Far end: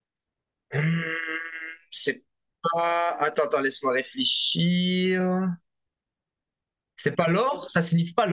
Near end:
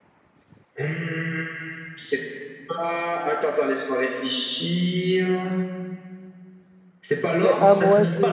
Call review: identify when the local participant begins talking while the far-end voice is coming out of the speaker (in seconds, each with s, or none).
7.2 s